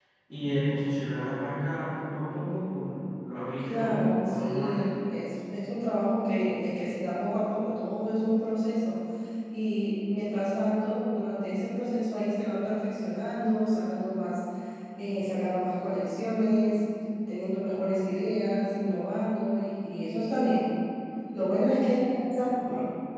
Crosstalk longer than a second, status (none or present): present